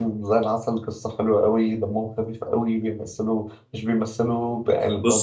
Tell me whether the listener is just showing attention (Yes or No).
Yes